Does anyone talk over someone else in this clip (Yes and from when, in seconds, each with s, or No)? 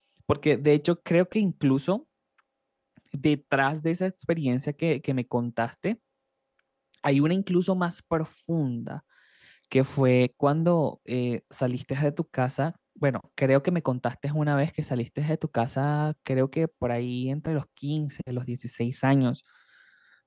No